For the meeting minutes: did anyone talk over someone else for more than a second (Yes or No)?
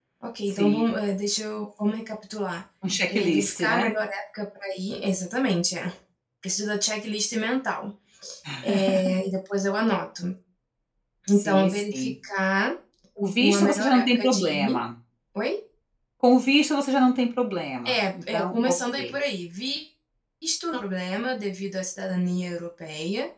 Yes